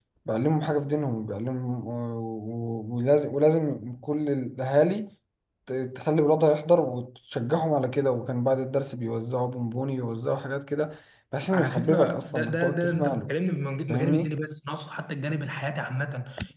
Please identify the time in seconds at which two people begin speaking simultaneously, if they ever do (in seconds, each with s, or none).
11.5 s